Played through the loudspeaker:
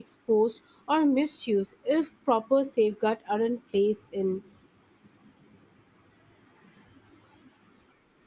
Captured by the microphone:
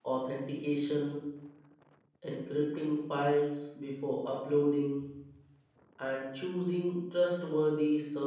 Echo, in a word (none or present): none